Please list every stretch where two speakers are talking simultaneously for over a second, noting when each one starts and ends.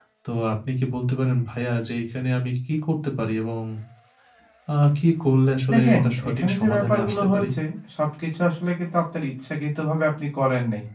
5.7-7.5

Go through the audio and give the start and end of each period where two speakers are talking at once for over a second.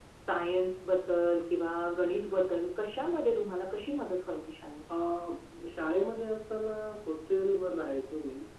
none

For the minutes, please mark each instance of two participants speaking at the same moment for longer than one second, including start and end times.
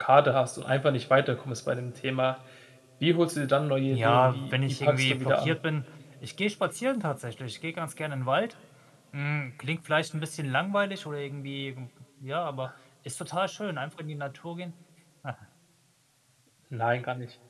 3.9-5.6

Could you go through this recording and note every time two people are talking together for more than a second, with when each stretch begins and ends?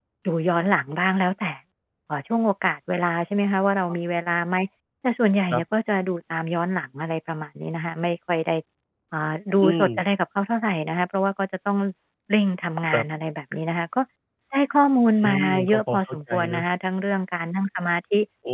15.2-16.6

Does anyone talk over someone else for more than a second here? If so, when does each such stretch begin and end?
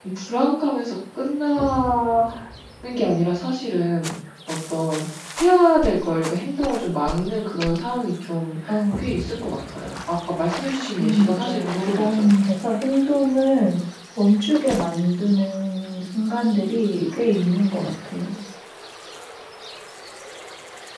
11.0-12.3

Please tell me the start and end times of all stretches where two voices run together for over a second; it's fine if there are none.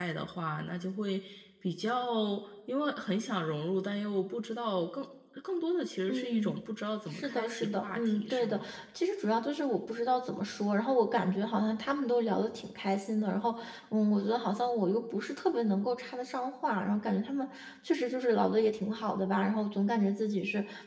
7.0-8.7

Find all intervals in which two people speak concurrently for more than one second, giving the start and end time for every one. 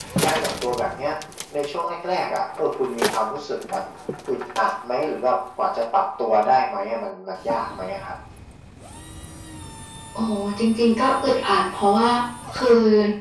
none

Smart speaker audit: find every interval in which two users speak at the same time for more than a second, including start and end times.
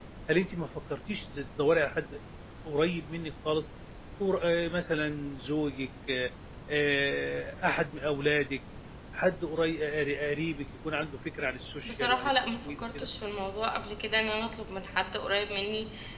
11.8-13.1

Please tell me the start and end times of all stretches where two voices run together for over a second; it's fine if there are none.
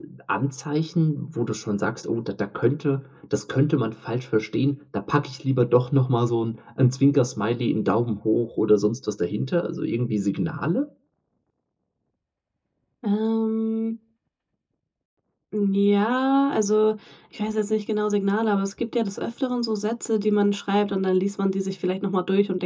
none

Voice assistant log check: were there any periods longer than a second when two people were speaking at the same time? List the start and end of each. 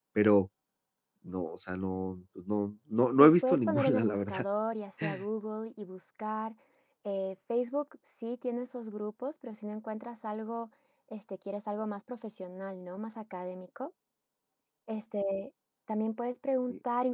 3.2-4.4

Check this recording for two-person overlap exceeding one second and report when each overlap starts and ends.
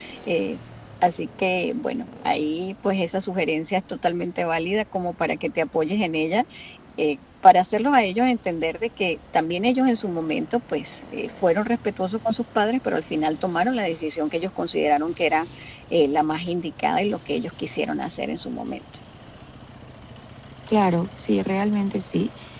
none

